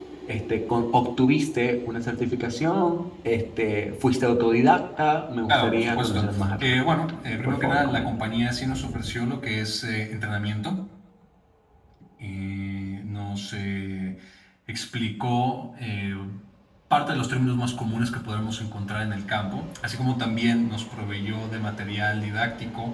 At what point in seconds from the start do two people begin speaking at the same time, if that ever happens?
5 s

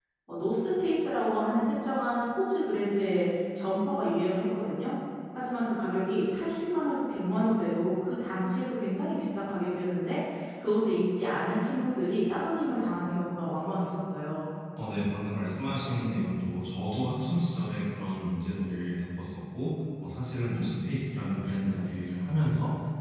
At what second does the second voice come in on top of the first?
none

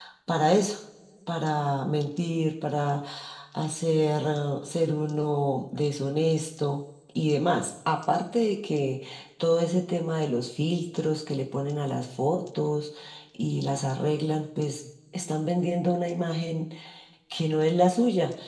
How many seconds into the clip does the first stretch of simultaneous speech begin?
none

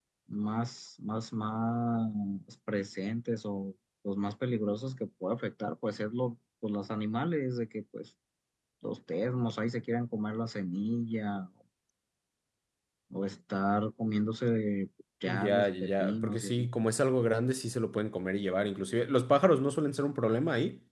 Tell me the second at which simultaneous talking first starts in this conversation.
15 s

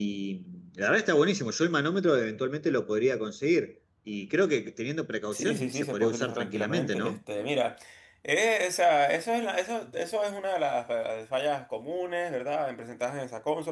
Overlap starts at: 5 s

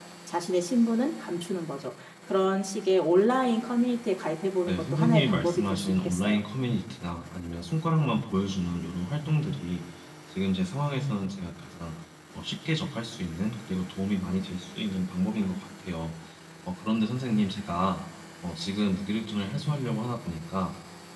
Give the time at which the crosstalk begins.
5 s

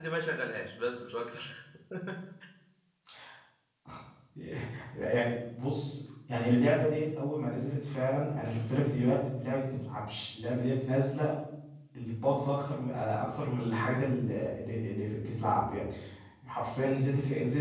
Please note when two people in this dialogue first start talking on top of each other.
none

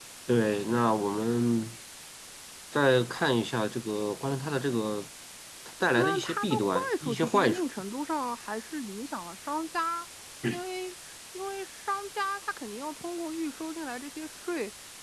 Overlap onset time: 6 s

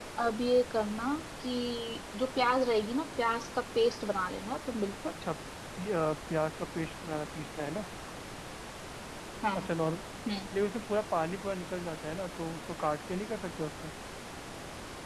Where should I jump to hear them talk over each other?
none

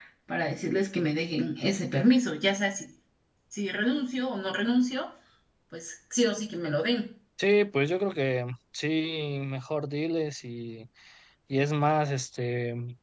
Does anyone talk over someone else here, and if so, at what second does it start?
none

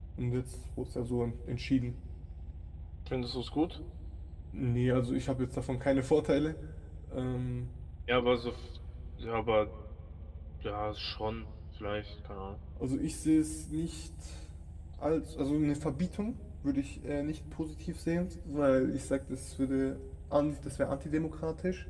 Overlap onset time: none

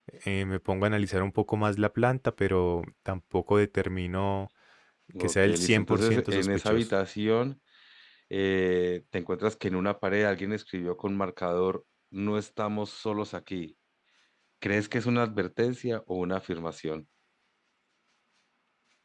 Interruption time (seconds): 5 s

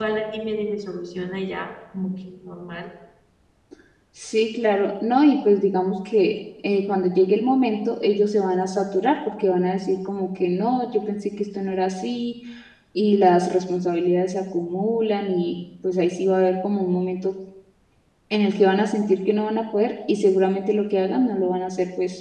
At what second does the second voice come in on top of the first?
none

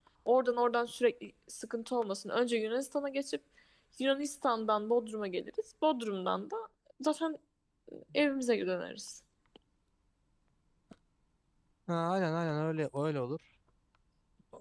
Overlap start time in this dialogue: none

